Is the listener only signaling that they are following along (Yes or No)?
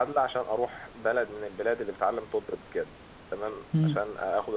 Yes